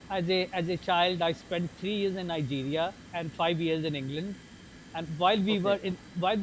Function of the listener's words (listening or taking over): listening